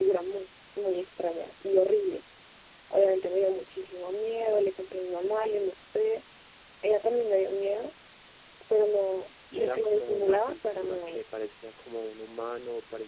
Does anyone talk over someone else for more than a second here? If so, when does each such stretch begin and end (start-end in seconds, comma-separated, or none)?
9.6-11.2